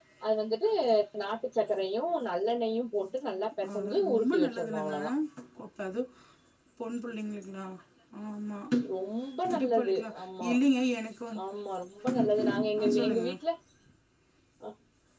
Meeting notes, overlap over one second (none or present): present